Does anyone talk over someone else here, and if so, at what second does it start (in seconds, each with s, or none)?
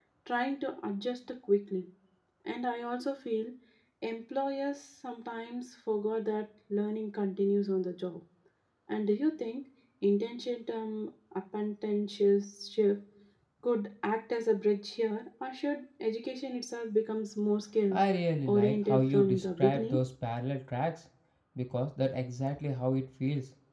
18.5 s